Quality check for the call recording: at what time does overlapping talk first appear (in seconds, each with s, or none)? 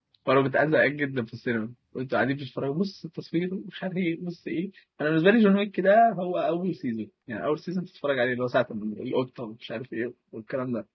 none